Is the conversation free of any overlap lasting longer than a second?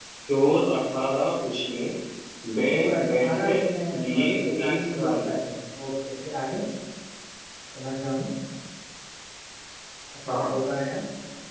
No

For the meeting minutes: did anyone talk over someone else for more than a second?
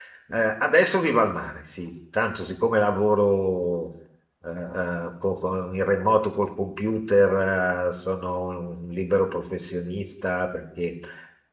No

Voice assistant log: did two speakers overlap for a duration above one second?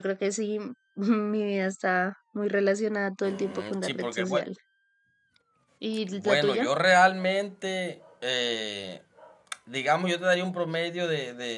Yes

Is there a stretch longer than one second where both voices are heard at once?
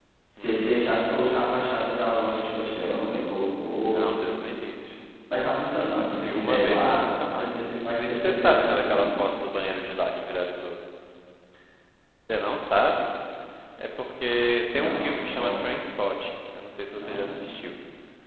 Yes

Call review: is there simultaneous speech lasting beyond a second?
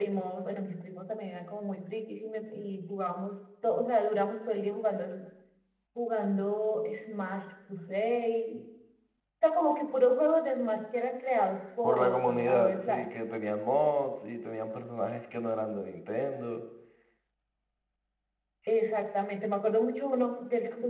Yes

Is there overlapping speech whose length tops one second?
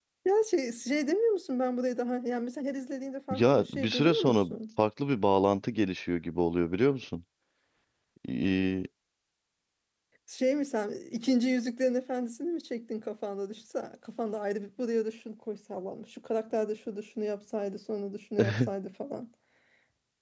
Yes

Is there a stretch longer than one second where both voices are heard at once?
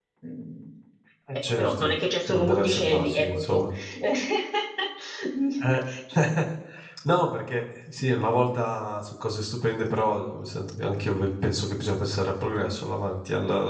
Yes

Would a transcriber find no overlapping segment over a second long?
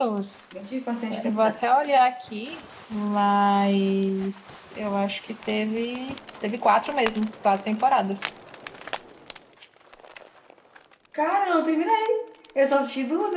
Yes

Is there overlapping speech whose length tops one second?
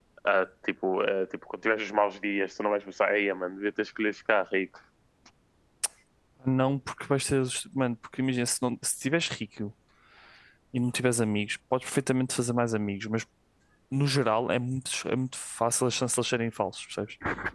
No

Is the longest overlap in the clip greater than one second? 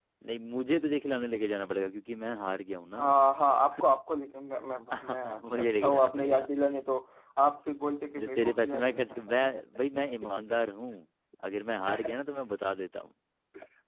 Yes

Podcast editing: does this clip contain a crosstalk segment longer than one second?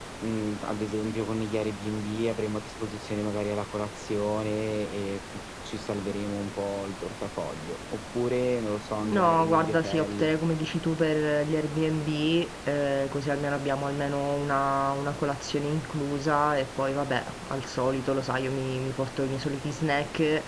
Yes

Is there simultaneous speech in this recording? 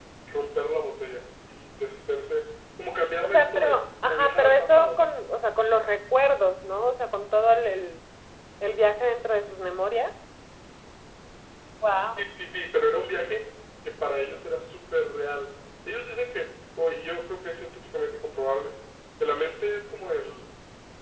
Yes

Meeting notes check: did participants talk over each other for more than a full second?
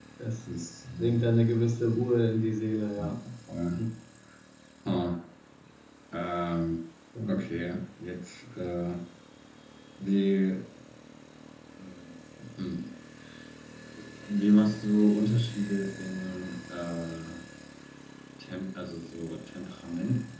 No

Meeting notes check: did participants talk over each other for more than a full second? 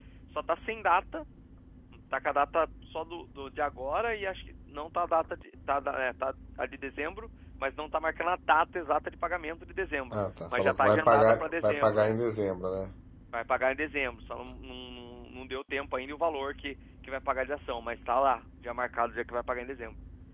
Yes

